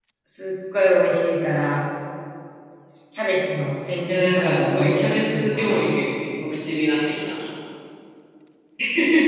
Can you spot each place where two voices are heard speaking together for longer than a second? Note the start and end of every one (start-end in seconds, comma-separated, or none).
4.1-5.9